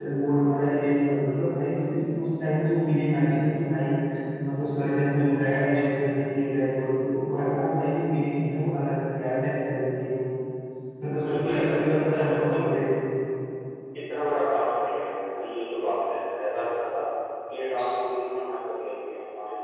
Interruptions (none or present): present